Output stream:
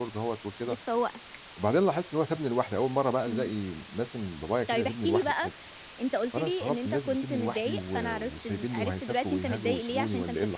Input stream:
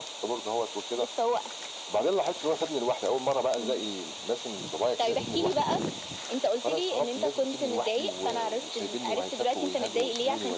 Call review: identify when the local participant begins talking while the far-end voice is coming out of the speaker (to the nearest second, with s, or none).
none